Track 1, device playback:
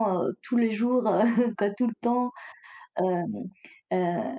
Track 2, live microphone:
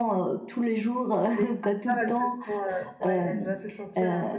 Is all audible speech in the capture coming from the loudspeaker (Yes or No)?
No